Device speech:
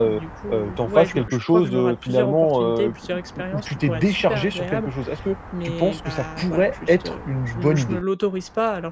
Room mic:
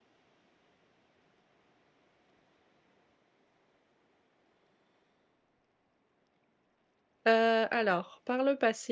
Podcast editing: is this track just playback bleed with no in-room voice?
No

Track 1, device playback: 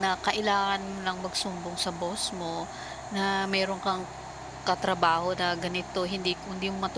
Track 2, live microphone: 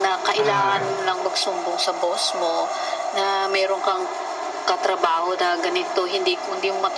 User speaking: Yes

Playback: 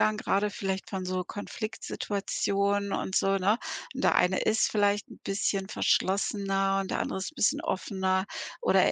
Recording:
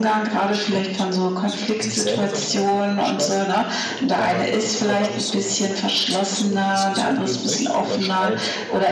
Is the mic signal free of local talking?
No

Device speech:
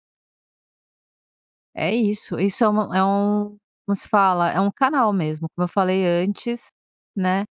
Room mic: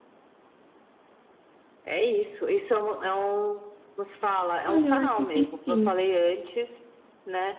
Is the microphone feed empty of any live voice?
No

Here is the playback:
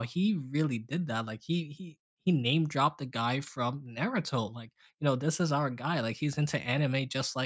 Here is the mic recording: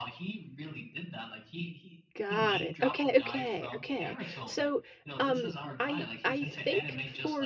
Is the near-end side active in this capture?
Yes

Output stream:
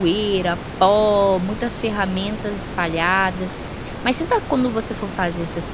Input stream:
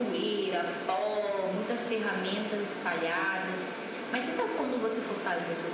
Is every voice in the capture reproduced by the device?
Yes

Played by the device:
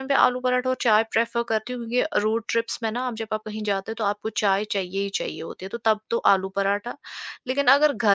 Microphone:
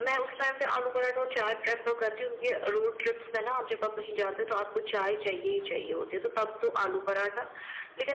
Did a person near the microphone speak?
No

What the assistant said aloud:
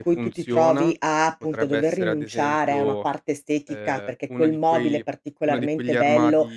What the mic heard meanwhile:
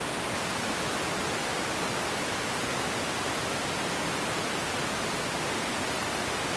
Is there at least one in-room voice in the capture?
No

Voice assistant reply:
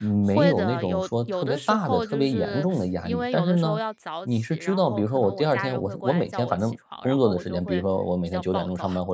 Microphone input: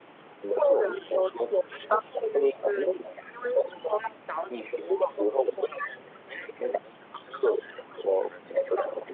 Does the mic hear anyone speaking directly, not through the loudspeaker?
No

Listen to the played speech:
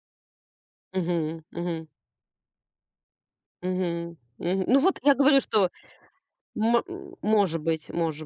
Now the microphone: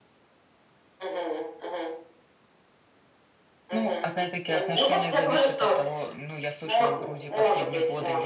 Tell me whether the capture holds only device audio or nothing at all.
No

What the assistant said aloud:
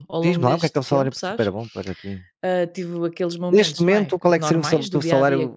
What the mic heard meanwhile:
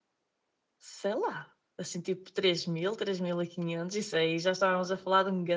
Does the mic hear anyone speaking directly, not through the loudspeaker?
Yes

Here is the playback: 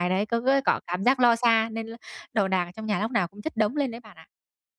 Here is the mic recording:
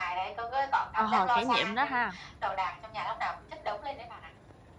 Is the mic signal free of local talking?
No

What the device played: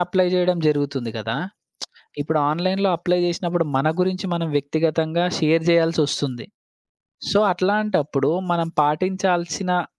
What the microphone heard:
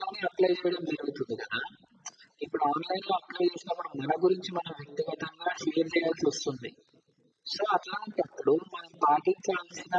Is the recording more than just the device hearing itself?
No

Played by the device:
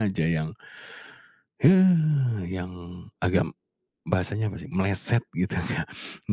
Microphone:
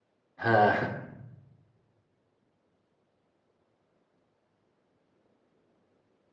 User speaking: Yes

